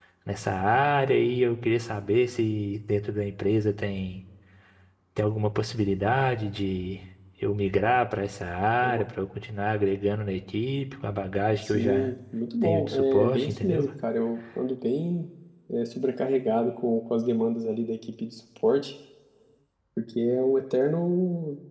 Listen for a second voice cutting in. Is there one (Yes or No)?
Yes